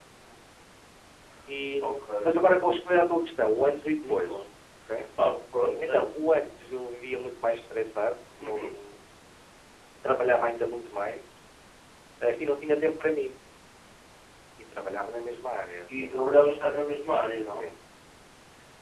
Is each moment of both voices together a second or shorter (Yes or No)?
Yes